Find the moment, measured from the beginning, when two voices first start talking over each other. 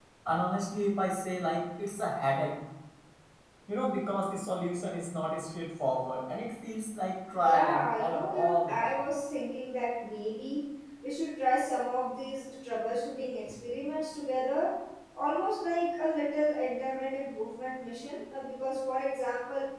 7.3 s

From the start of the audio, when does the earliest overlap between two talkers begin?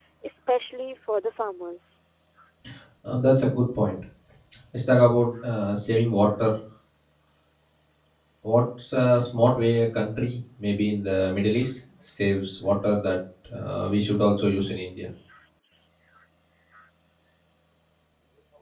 none

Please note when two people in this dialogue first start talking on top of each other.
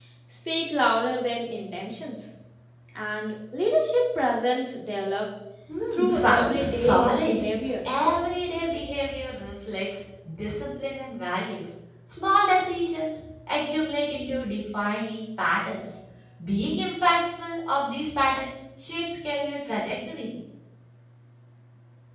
5.9 s

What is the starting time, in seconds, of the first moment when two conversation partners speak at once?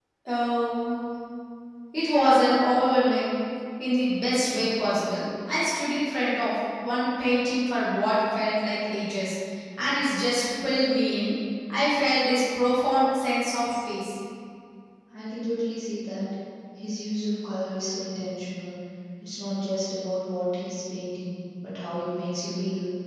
none

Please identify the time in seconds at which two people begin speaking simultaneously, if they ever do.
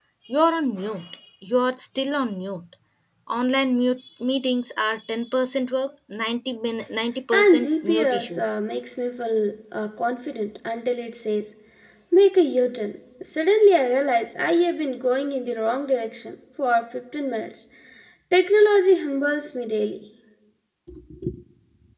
7.3 s

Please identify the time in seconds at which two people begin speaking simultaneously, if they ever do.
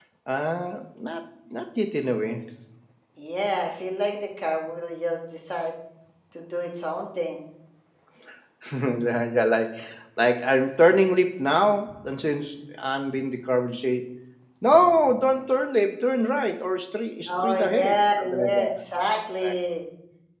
17.3 s

